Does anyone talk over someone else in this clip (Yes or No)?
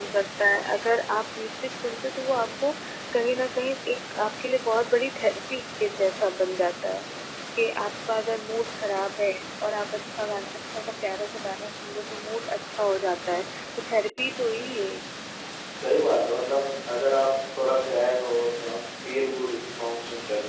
No